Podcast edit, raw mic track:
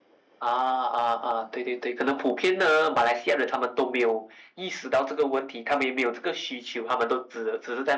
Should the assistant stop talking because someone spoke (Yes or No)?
No